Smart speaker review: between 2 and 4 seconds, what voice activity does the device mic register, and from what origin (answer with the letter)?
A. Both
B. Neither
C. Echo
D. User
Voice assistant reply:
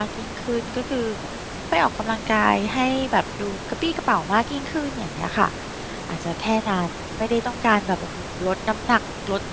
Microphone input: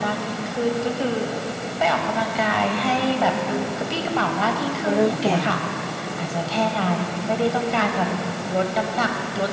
C